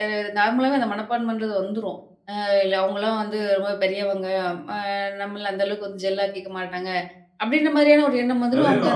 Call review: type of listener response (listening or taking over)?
taking over